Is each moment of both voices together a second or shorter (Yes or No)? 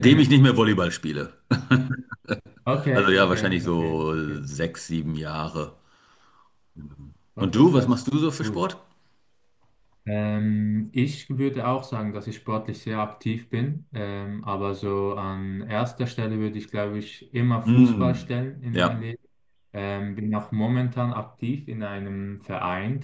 No